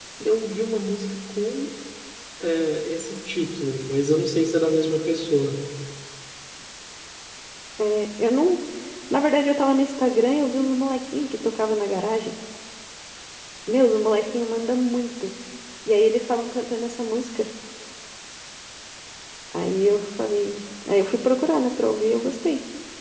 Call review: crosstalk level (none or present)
none